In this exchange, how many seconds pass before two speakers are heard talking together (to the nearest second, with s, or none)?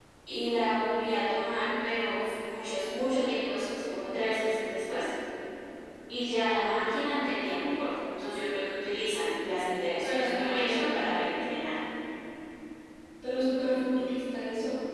10 s